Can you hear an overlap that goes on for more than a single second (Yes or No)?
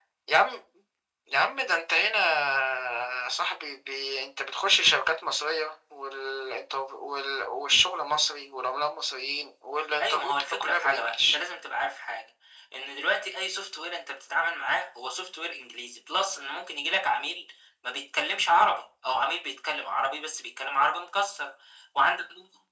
Yes